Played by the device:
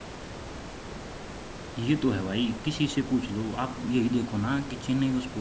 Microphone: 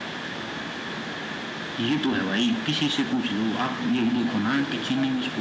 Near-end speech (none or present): present